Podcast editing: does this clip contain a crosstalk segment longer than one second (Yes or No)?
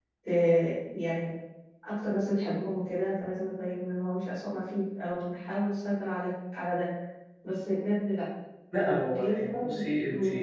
Yes